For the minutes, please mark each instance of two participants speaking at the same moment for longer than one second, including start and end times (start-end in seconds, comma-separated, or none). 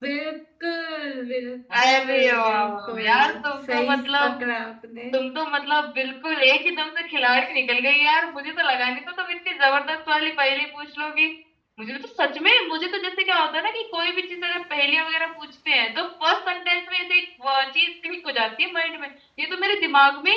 1.8-4.3